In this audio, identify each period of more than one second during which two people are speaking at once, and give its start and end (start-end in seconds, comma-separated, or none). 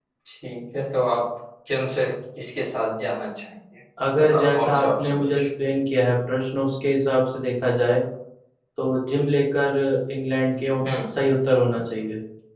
4.2-5.5